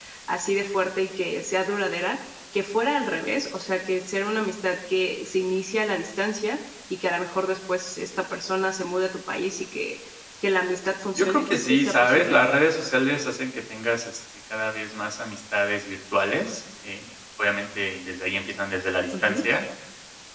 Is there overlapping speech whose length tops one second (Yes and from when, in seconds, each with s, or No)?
Yes, from 11.2 s